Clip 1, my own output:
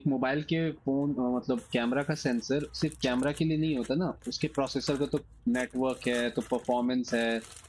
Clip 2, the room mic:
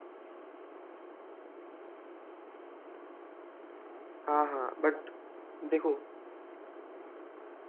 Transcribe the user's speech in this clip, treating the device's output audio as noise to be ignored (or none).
हाँ हाँ बट देखो